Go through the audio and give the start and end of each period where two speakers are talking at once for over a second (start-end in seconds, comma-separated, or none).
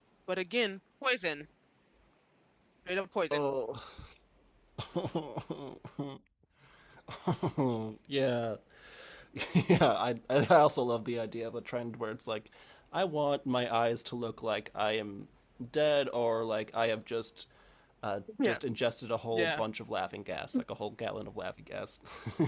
none